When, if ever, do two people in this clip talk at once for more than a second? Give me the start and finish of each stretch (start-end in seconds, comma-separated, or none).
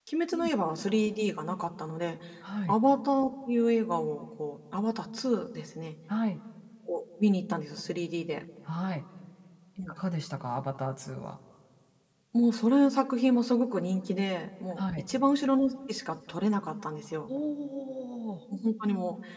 none